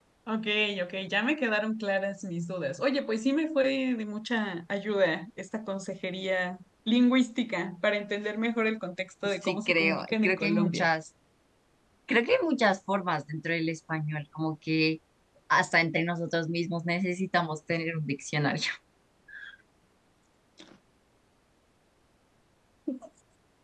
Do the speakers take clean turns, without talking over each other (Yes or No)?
No